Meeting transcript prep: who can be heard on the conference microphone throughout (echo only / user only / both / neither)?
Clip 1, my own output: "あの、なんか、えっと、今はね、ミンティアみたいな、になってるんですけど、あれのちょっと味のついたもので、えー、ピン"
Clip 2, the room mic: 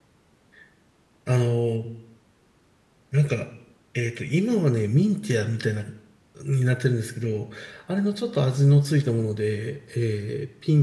echo only